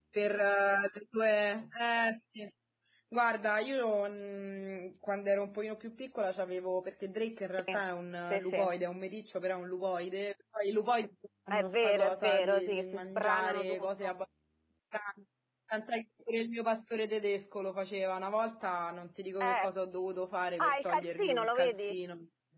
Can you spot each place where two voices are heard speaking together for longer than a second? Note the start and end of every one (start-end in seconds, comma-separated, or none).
11.5-14.2, 20.6-21.9